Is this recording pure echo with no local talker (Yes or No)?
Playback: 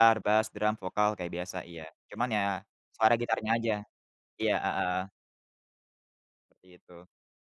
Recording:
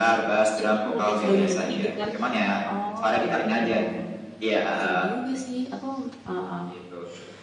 No